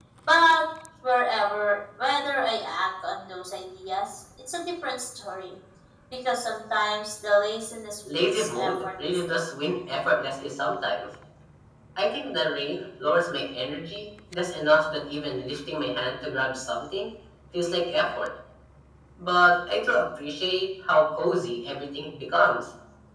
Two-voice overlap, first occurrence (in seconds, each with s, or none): 8.1 s